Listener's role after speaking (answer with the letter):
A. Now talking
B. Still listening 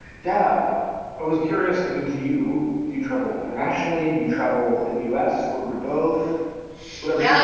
A